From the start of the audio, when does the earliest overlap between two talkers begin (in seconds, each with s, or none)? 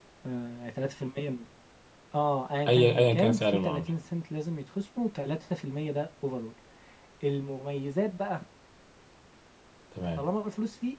2.7 s